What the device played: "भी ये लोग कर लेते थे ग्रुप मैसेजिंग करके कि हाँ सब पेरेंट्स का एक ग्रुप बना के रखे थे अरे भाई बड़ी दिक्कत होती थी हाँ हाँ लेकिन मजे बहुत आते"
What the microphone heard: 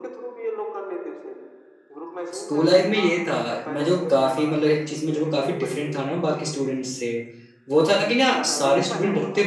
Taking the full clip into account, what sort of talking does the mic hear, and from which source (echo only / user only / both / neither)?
both